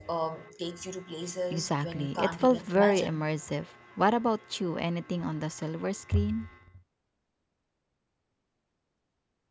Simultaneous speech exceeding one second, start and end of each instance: 1.5-3.2

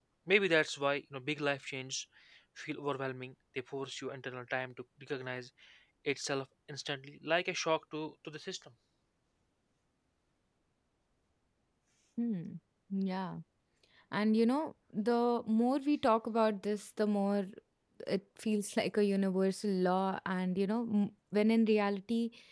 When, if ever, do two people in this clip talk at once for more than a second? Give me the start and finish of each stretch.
none

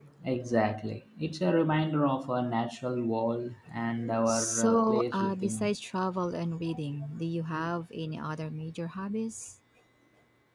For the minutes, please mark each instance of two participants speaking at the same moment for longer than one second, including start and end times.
4.3-5.7

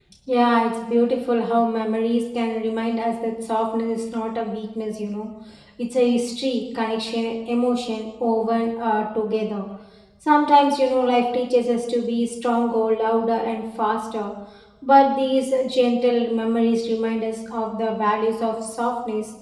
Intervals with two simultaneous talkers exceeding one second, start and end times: none

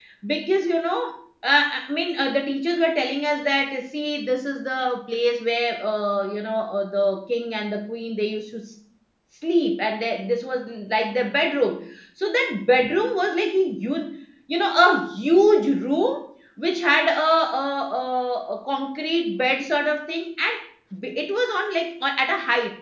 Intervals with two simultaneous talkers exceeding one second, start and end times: none

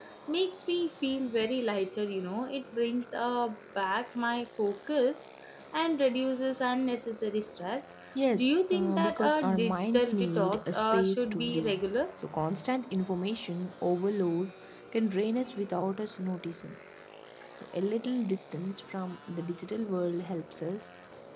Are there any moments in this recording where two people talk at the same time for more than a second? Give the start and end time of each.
8.3-11.8

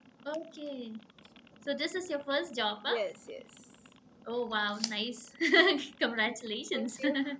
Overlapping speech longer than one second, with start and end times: none

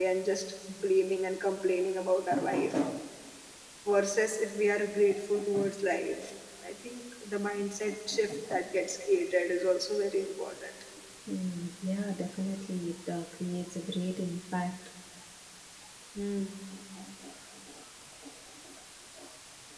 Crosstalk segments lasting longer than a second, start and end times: none

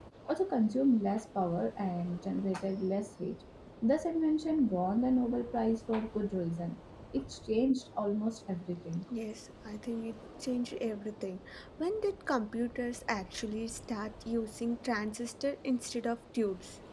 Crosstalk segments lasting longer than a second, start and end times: none

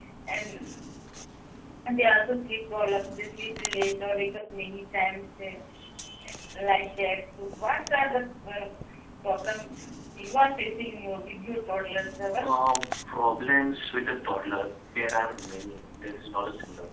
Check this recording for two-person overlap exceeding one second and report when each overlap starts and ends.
none

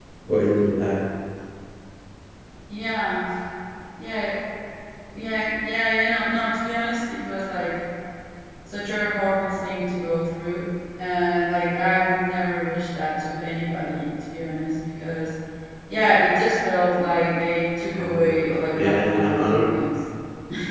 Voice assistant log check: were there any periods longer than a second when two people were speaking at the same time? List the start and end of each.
17.9-19.6

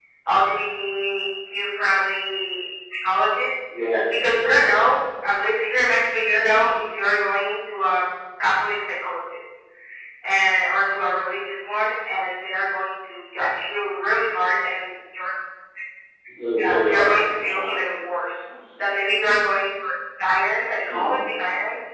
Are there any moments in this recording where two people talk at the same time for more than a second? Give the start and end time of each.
16.6-17.8

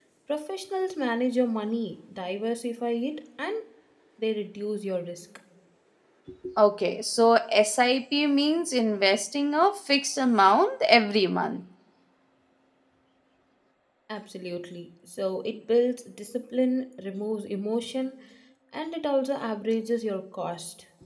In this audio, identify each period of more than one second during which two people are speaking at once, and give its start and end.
none

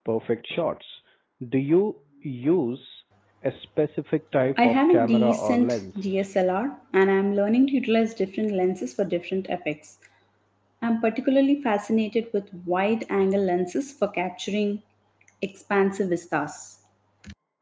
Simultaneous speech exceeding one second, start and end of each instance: 4.6-6.2

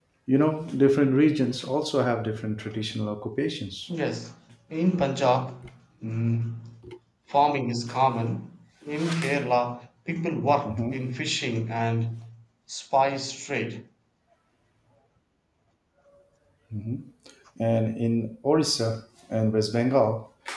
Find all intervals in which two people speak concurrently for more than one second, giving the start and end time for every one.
none

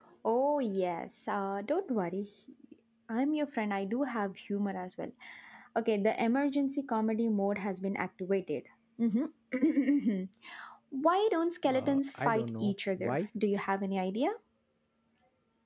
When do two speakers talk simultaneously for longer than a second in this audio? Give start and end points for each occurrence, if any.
11.6-13.2

